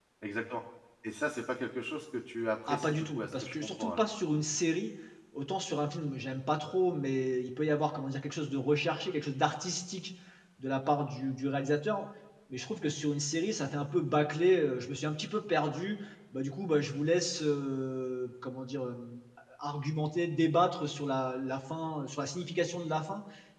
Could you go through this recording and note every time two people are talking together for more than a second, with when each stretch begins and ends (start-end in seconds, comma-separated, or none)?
2.7-4.1